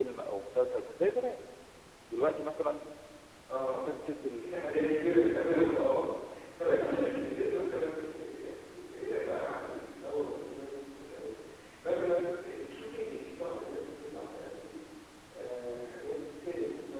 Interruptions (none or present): none